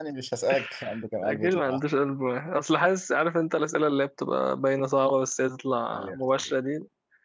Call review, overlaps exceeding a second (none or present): none